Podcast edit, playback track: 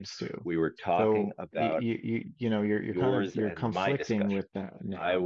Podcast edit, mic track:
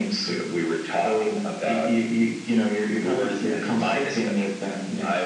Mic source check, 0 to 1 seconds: echo only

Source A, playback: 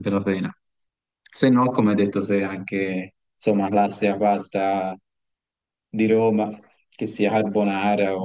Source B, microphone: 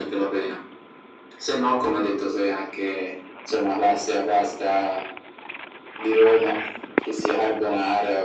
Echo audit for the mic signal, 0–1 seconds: echo only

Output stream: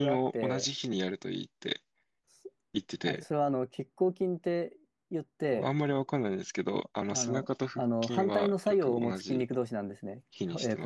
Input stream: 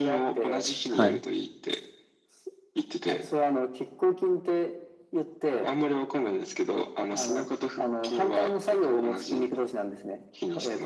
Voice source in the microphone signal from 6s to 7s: echo only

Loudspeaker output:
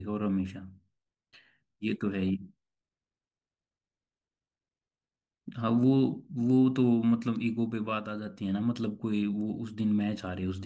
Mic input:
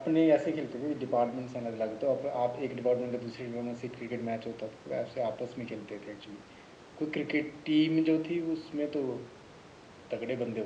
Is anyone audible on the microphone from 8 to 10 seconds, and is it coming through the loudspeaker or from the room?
user only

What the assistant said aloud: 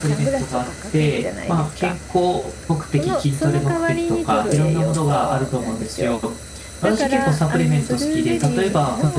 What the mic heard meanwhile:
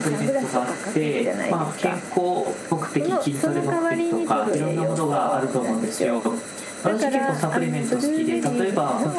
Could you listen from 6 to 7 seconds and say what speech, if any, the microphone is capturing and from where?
echo only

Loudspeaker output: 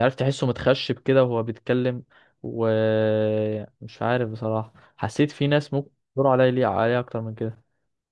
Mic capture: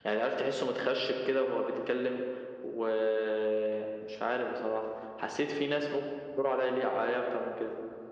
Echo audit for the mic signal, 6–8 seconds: echo only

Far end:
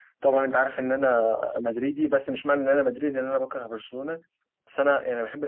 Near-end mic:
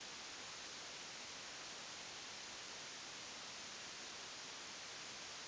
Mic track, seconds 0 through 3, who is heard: neither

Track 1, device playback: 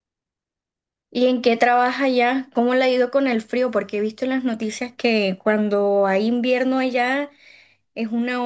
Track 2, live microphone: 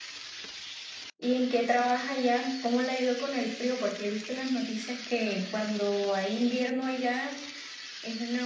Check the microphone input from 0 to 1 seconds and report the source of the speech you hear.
neither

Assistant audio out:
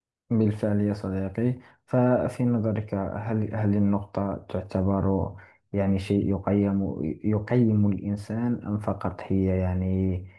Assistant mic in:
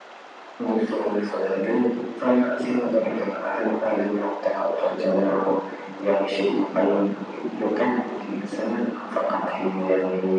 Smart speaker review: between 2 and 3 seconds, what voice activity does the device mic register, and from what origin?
echo only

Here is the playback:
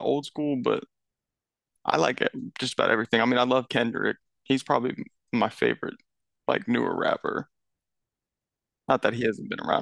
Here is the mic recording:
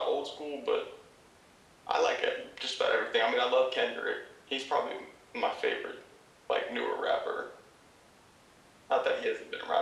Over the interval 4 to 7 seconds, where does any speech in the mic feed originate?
echo only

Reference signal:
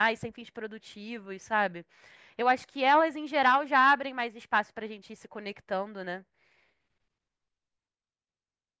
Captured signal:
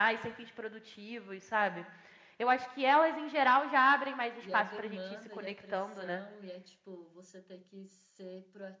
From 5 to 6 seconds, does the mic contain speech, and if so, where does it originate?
both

